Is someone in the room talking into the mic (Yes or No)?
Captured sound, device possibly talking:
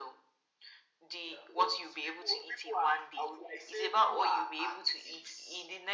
No